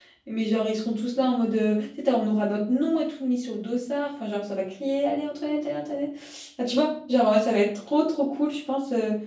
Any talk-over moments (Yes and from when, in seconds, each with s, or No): No